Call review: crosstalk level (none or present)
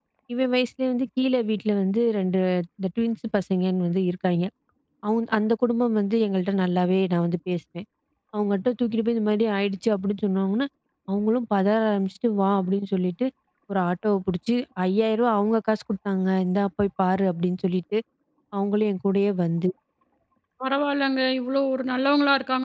none